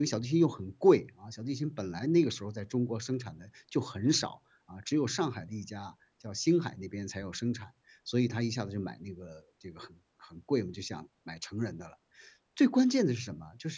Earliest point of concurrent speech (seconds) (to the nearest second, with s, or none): none